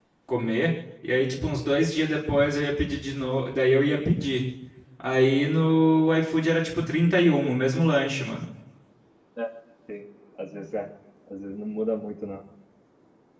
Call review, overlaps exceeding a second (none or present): none